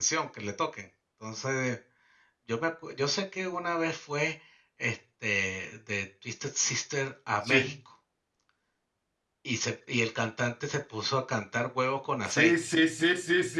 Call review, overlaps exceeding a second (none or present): none